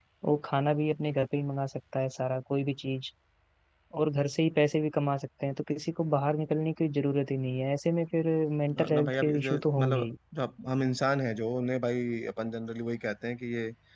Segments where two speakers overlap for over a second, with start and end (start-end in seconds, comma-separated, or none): 8.8-10.1